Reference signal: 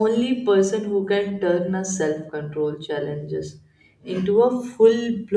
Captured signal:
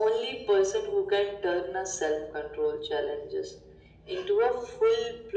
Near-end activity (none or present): none